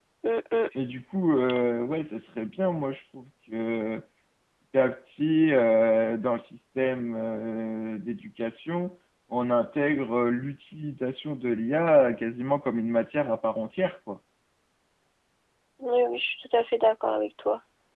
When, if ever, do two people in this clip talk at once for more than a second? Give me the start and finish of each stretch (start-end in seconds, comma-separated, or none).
none